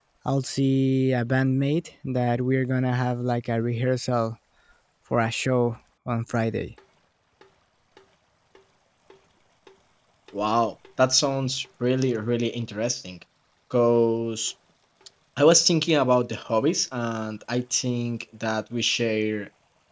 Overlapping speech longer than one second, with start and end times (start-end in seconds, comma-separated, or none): none